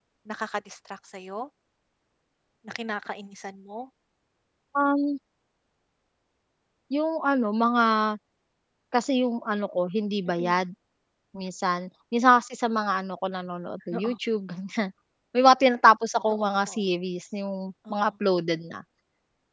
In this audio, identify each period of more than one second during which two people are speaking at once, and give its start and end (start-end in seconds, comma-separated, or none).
none